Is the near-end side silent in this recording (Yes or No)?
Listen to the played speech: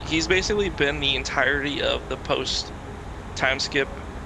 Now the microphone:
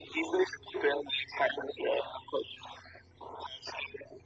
Yes